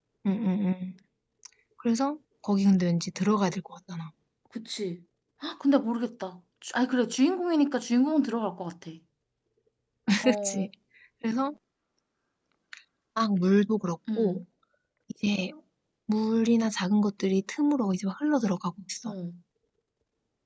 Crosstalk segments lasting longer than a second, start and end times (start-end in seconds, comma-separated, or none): none